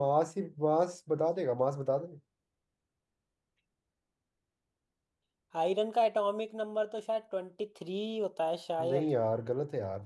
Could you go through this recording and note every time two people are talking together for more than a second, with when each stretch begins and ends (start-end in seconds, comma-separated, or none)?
none